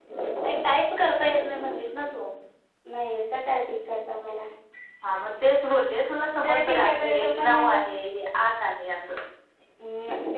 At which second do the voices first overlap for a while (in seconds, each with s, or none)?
6.4 s